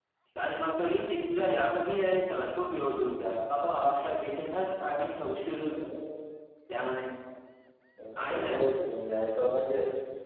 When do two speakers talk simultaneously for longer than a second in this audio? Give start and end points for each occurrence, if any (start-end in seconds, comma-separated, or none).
none